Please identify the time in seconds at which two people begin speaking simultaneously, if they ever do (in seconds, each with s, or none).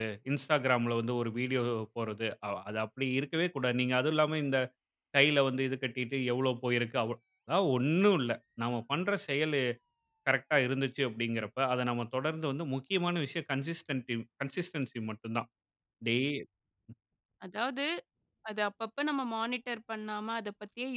none